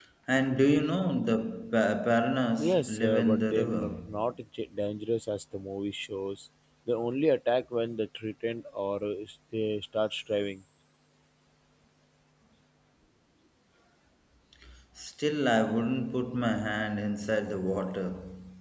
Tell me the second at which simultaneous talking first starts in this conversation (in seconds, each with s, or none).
2.6 s